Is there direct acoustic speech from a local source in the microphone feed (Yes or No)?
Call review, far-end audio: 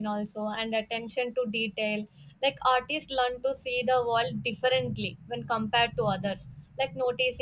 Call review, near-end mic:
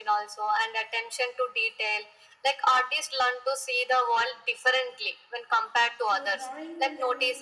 Yes